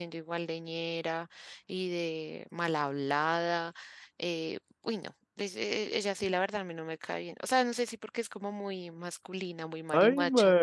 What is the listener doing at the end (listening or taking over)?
taking over